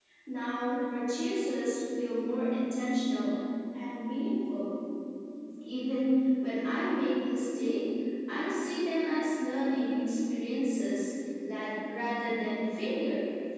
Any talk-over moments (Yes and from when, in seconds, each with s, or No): No